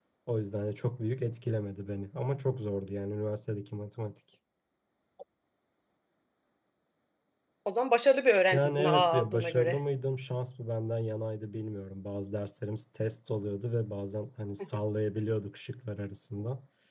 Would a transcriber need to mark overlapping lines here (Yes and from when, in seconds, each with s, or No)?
Yes, from 8.5 s